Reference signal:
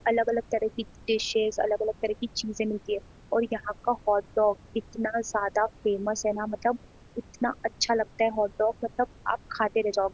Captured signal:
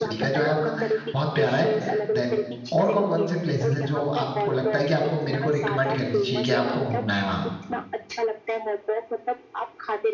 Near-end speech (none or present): present